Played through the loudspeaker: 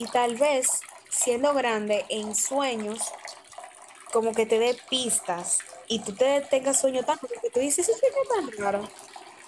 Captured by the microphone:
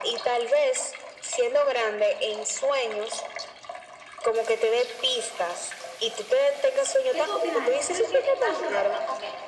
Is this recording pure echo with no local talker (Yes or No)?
No